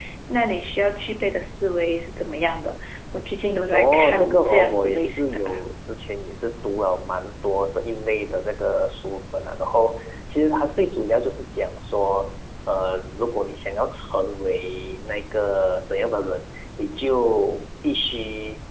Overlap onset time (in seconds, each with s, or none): 3.7 s